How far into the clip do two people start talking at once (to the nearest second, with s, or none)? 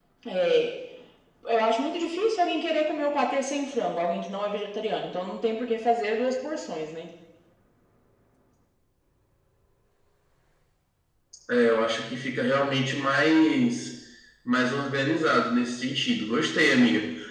none